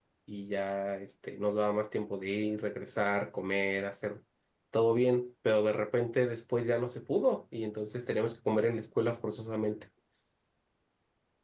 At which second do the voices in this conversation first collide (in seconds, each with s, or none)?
none